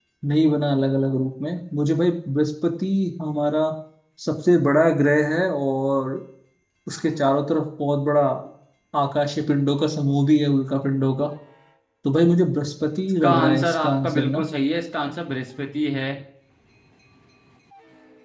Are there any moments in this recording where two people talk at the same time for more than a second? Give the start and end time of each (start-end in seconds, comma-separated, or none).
13.2-14.5